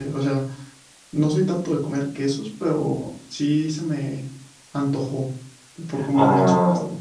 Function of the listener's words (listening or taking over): taking over